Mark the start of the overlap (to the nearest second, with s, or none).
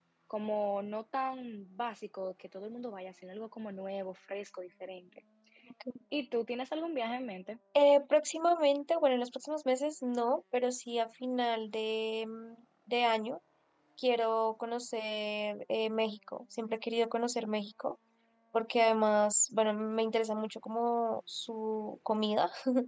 none